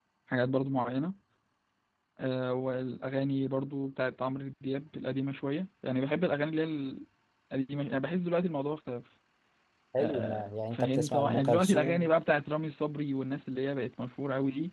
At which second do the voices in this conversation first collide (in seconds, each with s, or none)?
10.0 s